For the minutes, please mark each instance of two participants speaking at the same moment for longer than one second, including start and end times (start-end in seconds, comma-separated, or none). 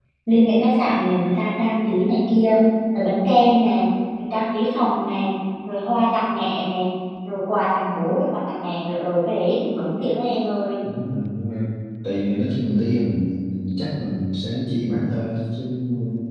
none